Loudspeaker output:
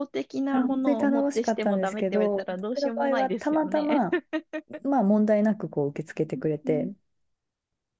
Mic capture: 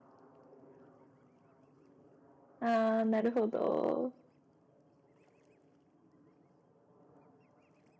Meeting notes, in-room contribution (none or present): present